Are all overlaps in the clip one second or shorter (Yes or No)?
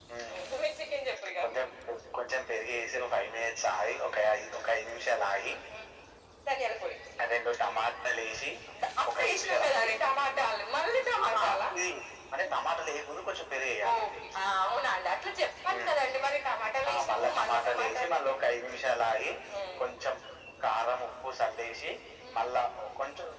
No